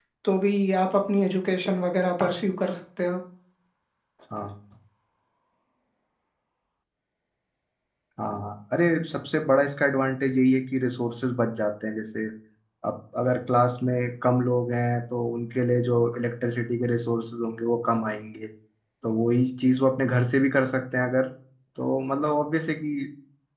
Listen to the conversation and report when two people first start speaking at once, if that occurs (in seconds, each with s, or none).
none